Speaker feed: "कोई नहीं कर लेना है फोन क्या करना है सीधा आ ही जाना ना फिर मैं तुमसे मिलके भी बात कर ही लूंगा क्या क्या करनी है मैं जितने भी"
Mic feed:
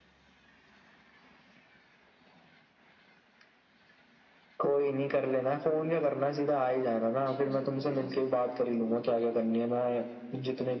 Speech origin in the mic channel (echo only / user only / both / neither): both